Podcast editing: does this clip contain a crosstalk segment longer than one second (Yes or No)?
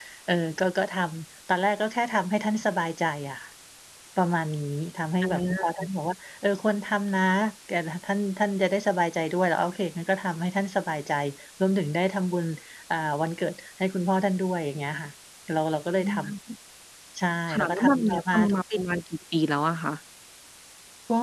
Yes